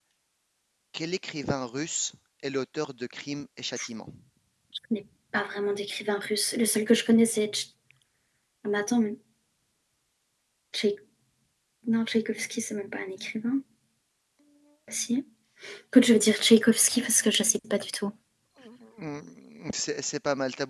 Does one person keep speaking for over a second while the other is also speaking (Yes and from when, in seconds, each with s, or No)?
No